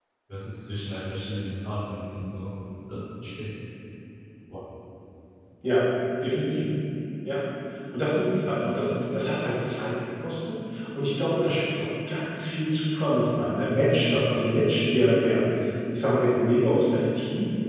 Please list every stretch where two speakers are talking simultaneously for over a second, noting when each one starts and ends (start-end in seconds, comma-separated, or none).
none